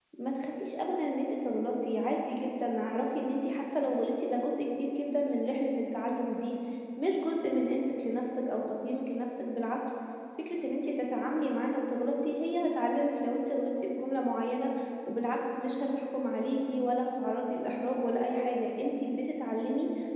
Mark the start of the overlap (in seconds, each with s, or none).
none